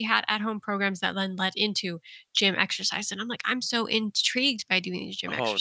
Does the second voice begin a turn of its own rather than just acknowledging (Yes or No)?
No